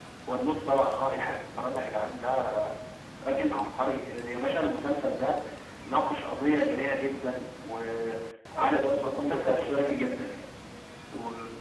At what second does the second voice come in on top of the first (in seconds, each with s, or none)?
8.5 s